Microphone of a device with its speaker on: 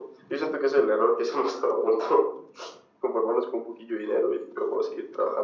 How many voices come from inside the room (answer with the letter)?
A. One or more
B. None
B